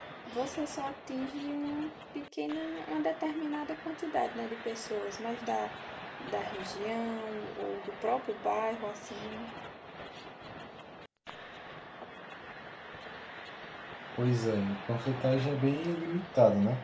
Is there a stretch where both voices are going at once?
No

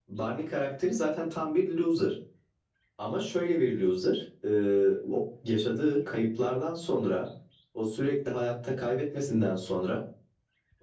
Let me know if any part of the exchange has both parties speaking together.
No

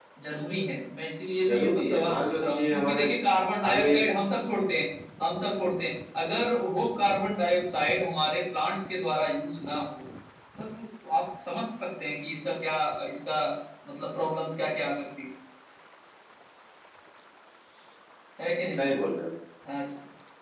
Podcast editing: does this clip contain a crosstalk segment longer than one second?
Yes, from 1.5 s

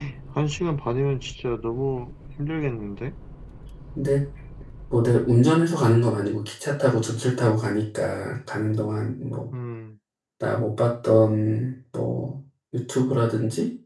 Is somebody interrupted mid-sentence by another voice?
No

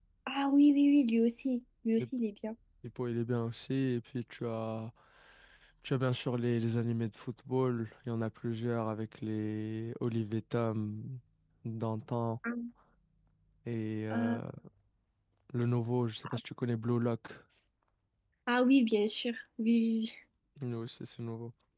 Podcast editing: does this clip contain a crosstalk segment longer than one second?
No

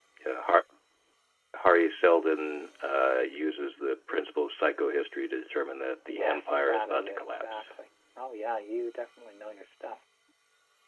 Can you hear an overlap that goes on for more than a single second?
Yes, from 6.1 s

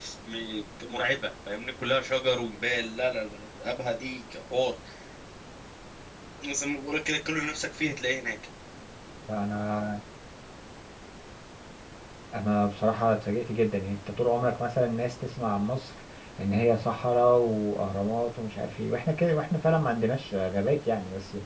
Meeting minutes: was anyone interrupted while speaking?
No

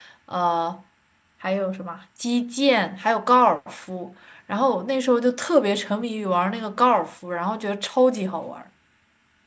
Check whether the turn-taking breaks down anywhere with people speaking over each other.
No

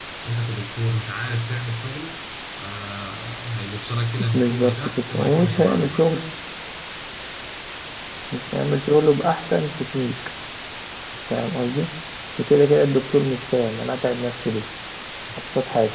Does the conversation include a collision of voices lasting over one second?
Yes, from 4.3 s

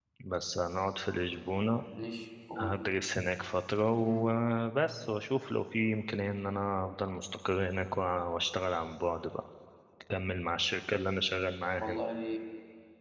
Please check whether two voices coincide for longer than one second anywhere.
No

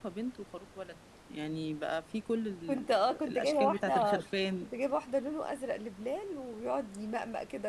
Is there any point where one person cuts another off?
Yes, from 2.7 s

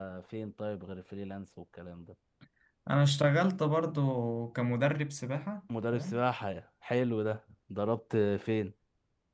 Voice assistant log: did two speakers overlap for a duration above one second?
No

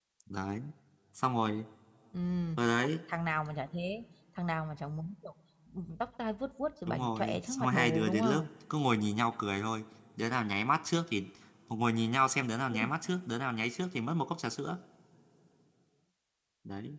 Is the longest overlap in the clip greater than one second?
Yes, from 6.9 s

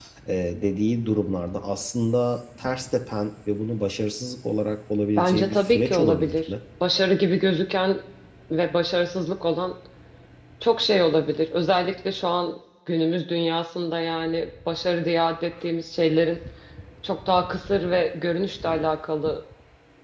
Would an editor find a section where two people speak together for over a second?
Yes, from 5.2 s

